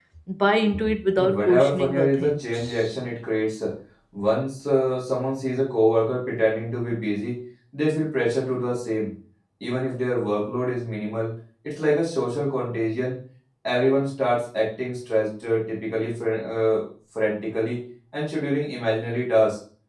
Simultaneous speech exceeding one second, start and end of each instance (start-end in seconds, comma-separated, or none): 1.1-3.0